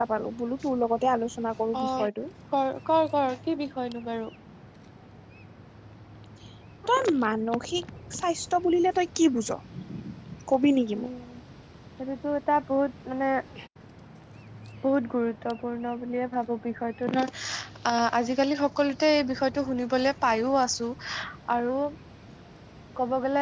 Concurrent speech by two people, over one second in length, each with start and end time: none

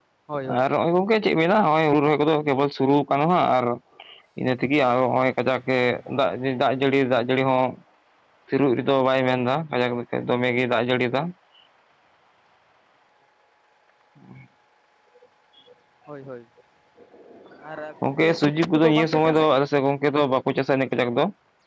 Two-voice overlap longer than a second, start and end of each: 18.0-19.5

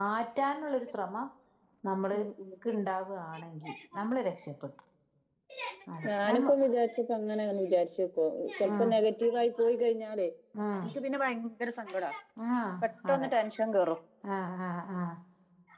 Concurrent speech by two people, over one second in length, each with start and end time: none

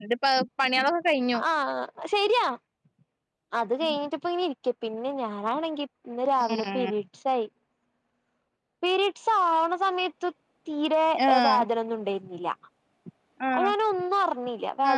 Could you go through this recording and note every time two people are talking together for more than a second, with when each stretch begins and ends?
none

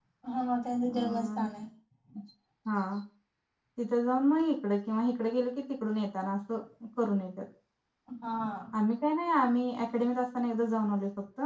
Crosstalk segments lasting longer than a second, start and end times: none

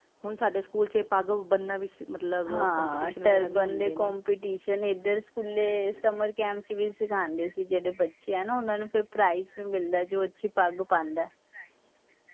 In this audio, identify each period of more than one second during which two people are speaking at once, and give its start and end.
2.5-4.1

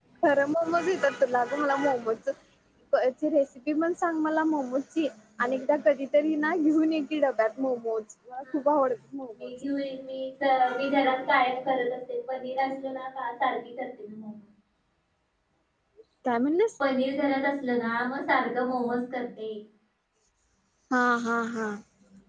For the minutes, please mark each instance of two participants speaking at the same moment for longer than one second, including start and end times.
none

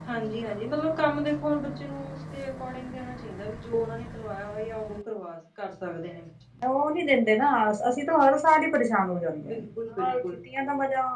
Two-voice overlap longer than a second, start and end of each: none

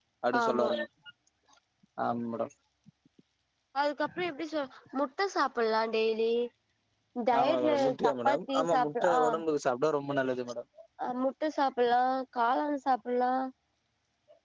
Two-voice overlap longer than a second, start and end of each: 7.4-9.2

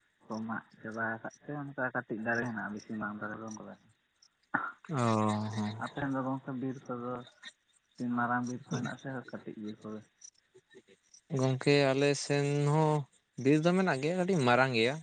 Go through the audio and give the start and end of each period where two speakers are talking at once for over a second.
none

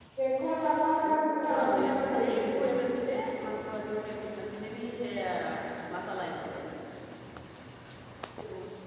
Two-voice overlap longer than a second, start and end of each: 1.1-2.6

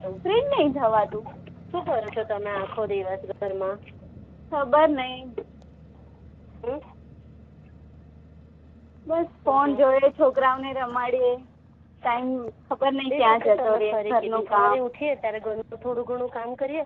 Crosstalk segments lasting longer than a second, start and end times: 13.2-14.8

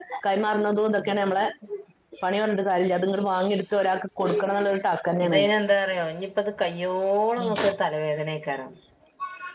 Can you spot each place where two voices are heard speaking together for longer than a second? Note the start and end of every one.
none

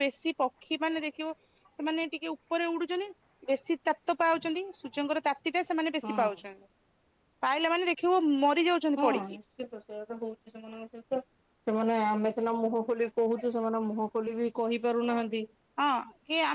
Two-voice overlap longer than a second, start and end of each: none

